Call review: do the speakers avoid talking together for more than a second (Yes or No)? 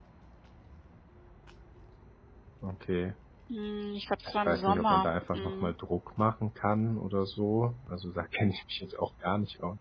No